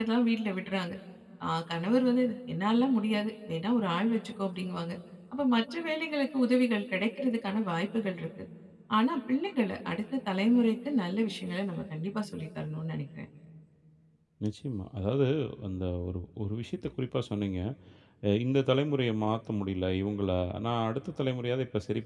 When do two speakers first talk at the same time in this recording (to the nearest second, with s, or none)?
none